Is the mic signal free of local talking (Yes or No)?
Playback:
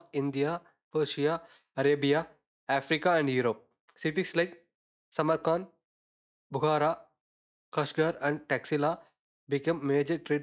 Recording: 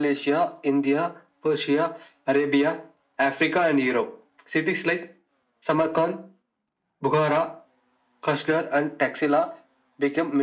Yes